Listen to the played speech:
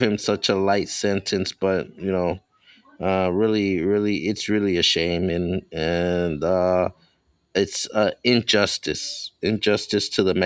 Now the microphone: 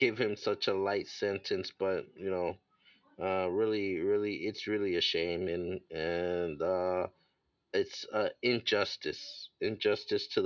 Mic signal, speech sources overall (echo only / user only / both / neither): echo only